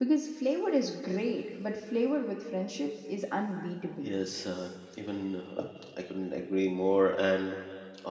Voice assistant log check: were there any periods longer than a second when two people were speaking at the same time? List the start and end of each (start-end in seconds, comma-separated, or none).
none